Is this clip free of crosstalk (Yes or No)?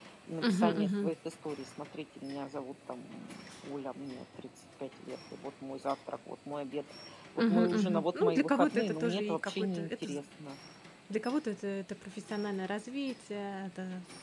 No